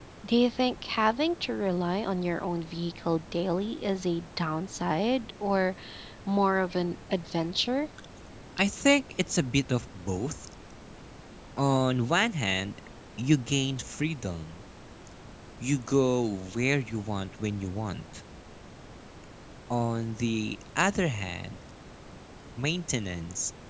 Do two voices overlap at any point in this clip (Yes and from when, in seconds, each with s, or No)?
No